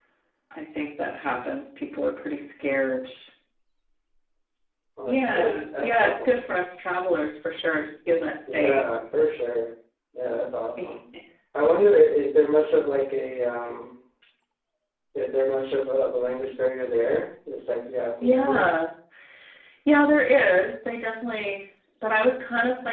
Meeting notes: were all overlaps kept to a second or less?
No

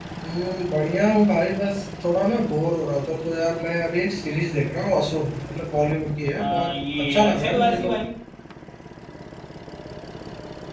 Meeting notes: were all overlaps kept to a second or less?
No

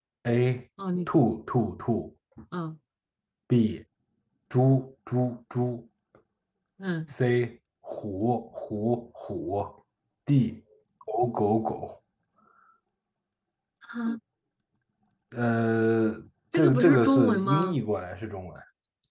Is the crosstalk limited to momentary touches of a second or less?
No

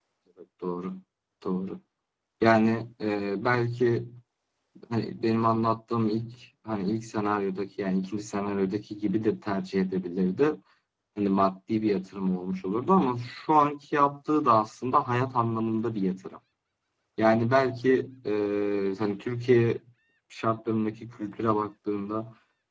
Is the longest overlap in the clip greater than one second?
No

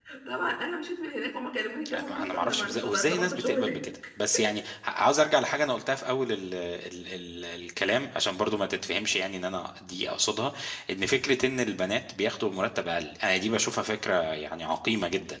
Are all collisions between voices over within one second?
No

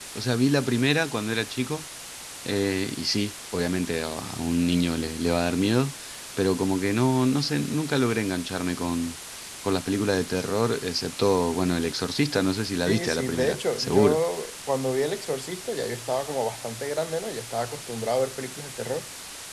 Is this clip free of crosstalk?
No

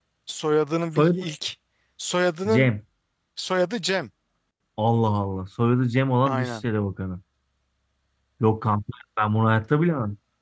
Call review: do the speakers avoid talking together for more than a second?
Yes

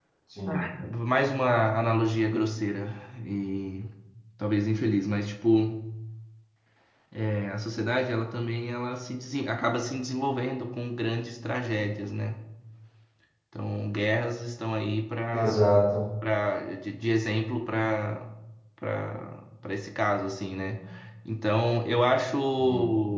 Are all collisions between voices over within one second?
Yes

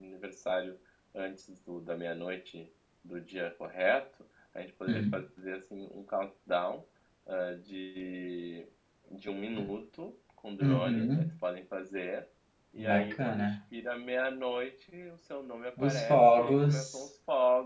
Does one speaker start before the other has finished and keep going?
Yes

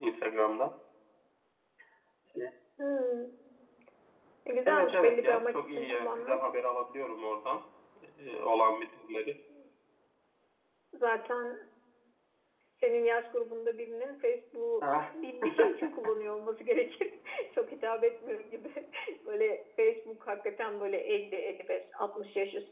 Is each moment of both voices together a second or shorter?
No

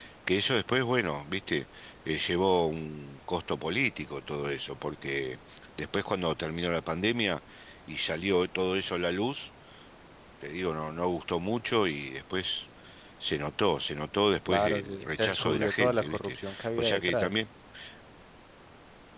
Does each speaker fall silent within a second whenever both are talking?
No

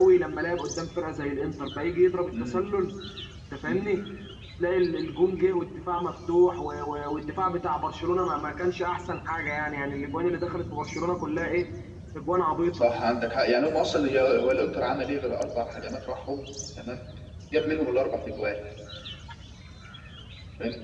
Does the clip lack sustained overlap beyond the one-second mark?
Yes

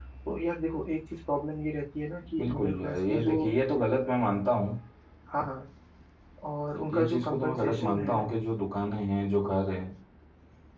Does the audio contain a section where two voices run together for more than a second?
Yes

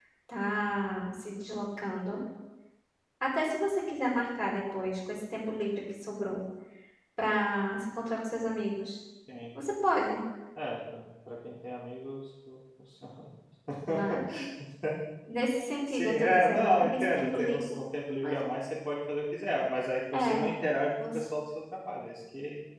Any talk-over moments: Yes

